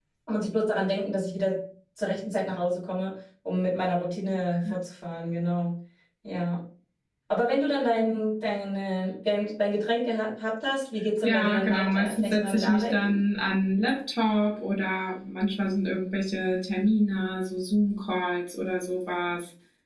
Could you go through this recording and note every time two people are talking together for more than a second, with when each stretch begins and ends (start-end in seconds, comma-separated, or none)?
11.2-13.2